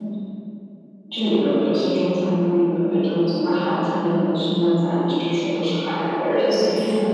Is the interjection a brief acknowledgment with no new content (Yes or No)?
No